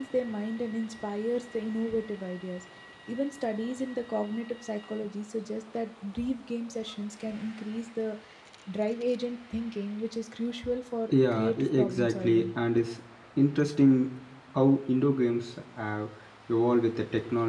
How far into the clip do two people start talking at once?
11.1 s

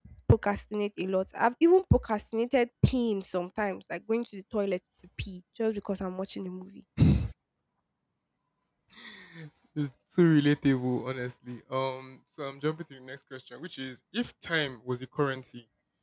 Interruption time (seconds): none

